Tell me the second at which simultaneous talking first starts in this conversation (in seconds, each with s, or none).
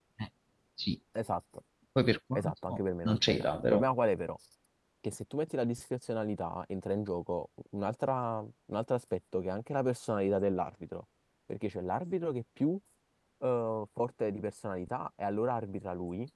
2.3 s